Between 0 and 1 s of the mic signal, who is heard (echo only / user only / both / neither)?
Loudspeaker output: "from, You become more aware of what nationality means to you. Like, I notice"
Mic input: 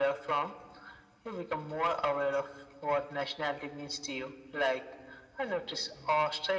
echo only